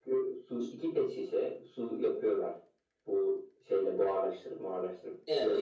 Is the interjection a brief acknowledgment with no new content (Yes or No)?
No